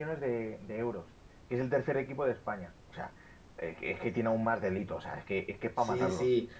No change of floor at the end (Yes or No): No